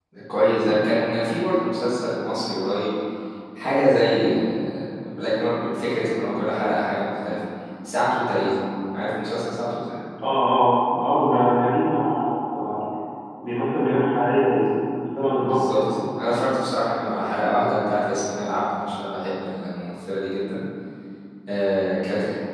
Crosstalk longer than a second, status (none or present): none